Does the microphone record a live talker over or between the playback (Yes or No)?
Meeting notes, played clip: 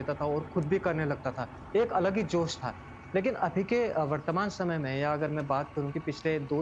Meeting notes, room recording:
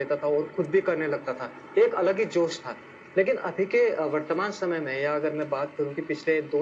No